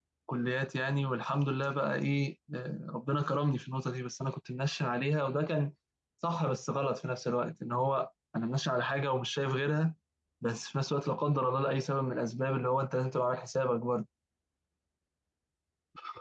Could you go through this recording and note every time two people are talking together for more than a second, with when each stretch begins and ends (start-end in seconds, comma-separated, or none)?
none